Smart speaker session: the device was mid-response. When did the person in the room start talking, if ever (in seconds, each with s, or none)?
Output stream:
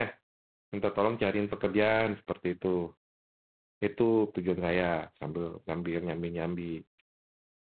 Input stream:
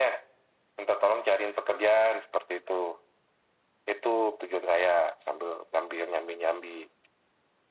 none